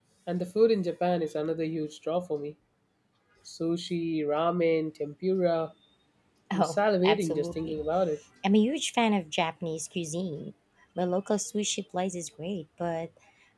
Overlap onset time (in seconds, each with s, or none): 6.5 s